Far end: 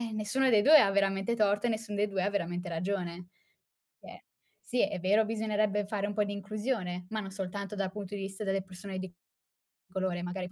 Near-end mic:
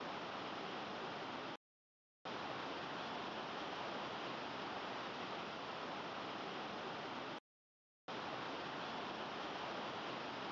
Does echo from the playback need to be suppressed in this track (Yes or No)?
No